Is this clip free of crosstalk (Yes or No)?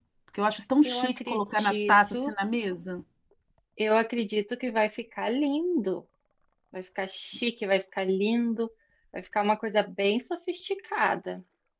No